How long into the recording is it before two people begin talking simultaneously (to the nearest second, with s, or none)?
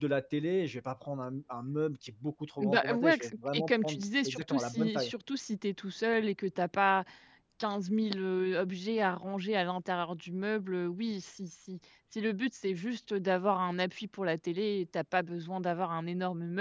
3 s